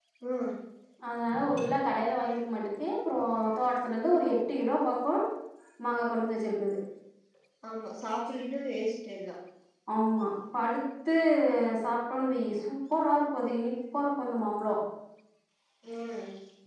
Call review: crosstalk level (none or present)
none